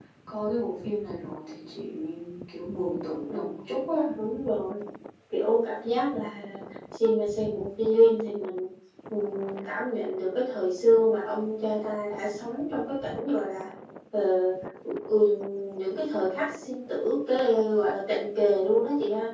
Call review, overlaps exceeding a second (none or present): none